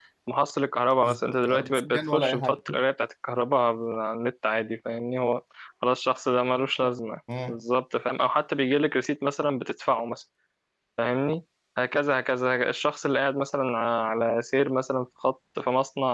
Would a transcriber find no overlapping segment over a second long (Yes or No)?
No